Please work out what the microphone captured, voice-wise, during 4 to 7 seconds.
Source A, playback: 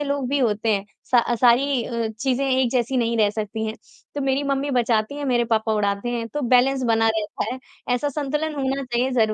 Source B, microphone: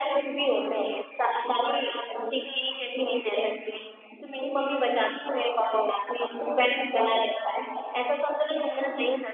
echo only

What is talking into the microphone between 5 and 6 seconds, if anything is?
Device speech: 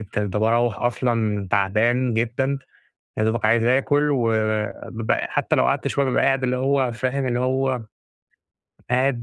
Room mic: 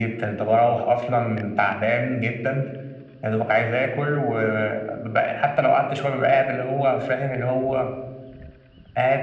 echo only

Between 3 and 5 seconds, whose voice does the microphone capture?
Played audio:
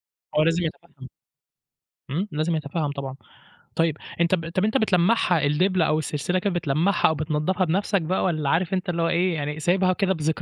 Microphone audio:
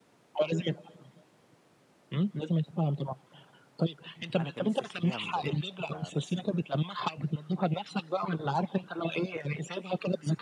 both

